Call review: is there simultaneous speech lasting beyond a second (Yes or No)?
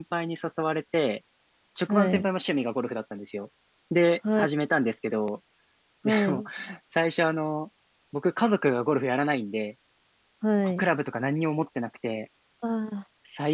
No